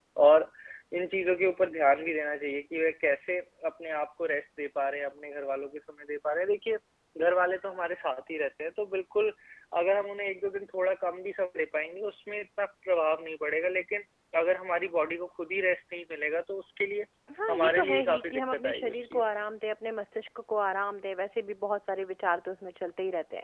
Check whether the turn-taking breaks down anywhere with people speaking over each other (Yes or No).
Yes